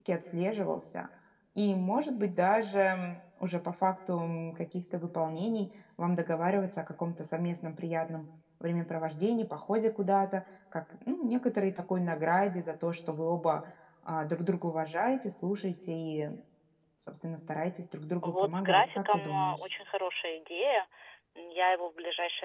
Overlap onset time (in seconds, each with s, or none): 18.2 s